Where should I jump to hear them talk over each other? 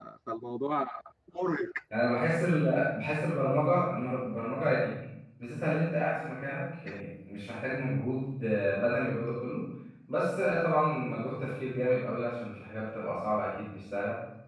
none

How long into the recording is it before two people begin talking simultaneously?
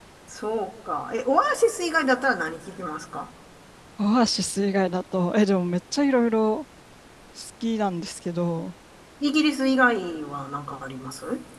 none

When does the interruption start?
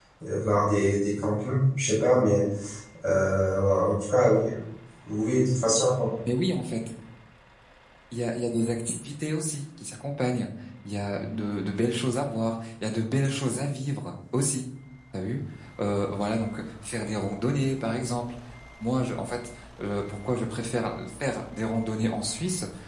none

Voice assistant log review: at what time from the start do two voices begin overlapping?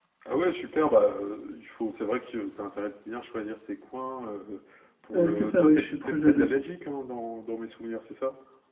5.2 s

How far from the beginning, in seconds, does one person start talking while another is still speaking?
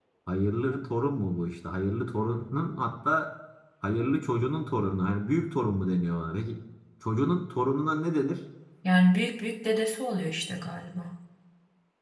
none

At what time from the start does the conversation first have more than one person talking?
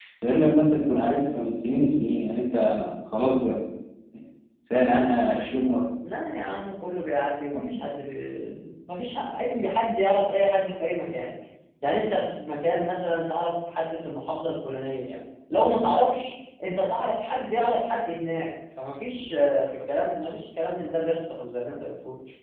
none

